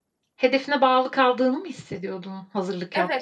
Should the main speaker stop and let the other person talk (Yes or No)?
Yes